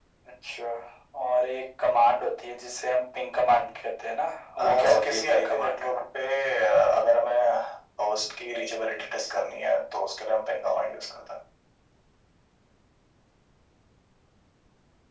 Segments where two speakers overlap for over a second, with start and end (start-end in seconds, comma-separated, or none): 4.6-5.8